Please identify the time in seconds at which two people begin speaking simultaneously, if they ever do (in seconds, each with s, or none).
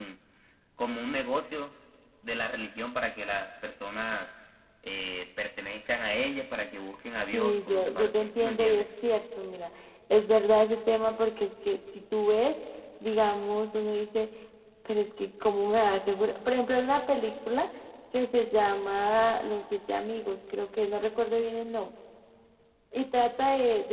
7.3 s